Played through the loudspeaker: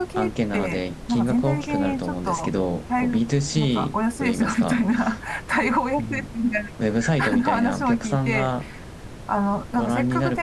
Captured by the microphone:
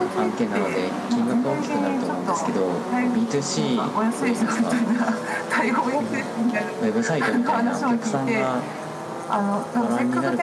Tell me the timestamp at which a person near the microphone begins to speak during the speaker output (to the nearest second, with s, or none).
none